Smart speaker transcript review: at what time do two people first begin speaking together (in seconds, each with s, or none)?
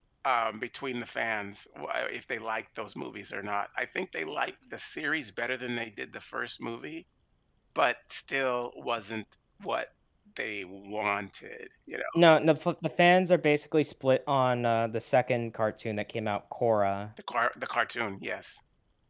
none